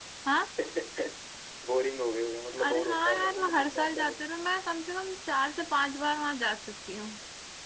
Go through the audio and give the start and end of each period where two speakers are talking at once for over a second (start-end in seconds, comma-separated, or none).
2.7-4.1